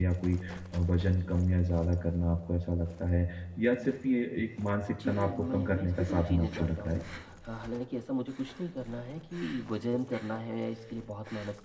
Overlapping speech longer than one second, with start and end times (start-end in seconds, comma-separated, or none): 4.9-7.0